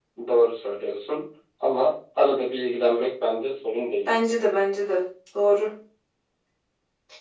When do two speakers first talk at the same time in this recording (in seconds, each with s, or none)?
none